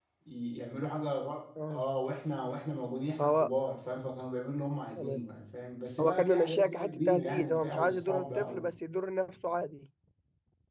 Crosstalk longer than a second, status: present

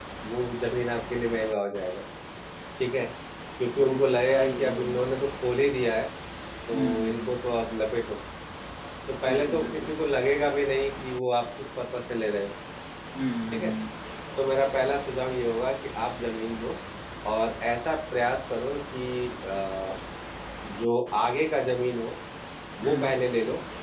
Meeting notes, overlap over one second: present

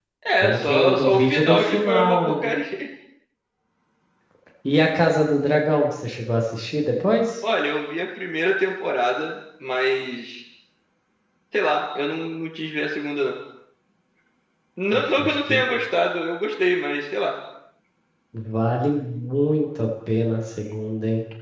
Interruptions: present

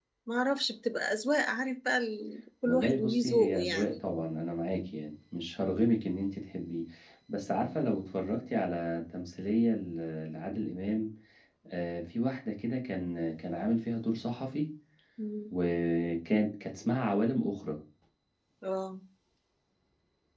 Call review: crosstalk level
present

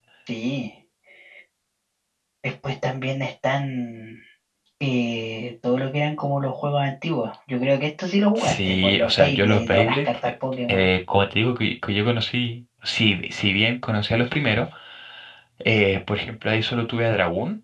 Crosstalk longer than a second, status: present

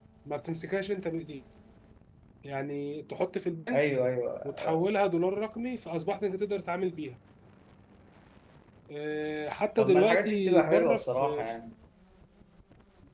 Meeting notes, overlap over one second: present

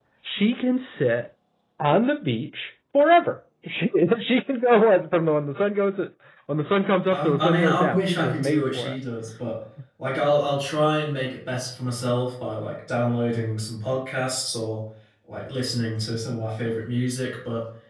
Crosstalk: present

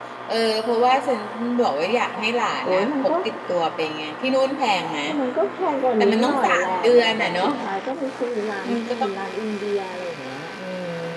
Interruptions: present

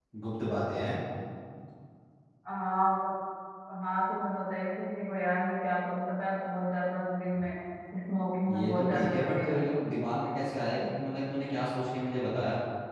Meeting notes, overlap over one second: present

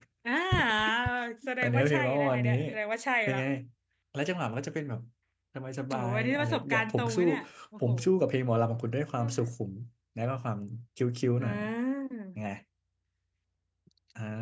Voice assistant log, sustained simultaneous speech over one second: present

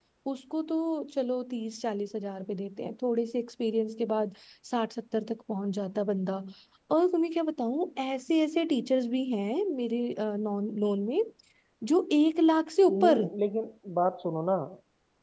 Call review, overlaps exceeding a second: none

